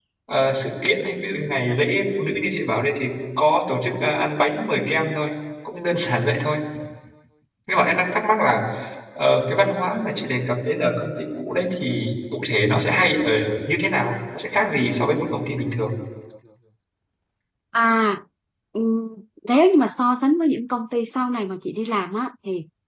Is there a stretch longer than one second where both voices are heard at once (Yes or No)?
No